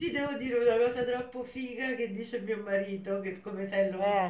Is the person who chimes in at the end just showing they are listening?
Yes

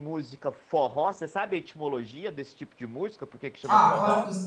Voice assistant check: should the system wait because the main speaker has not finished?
No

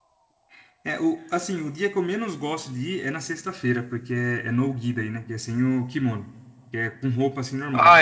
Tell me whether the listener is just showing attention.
No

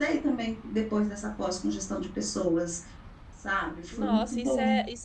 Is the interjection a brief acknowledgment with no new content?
No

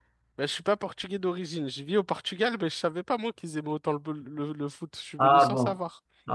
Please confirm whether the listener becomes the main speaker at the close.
Yes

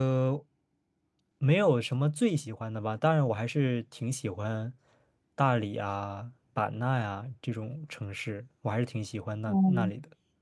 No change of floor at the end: No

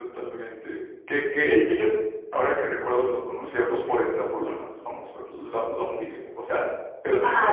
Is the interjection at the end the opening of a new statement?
Yes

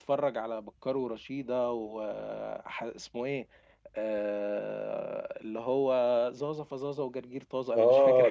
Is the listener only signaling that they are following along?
No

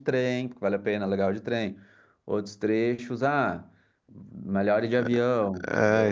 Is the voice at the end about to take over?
Yes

